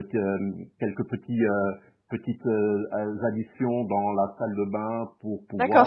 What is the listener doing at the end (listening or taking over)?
taking over